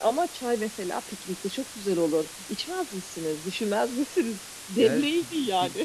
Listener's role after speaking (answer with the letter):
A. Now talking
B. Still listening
A